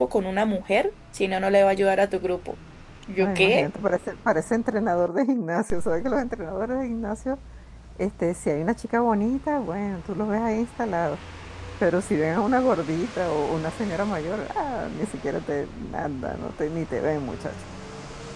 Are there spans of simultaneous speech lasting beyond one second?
No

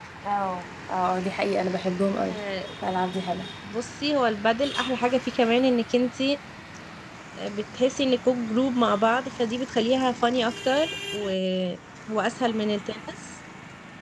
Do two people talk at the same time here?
No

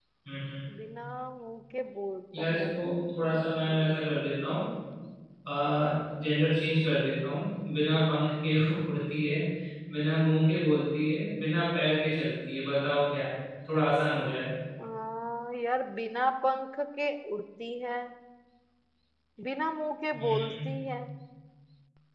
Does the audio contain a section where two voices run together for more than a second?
No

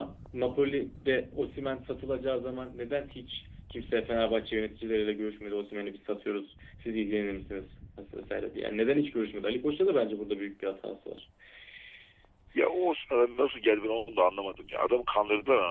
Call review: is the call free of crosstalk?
Yes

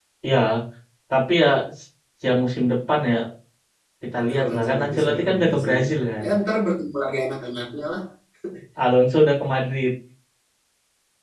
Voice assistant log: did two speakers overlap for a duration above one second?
Yes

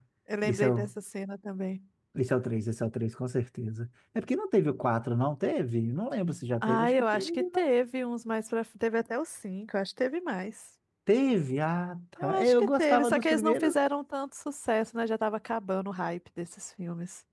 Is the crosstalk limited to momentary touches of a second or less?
No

